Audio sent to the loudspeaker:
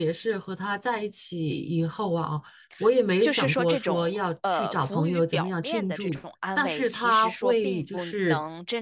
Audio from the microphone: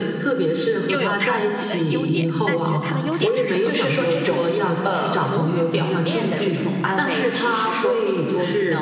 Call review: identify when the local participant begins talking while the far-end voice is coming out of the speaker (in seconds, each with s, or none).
0.8 s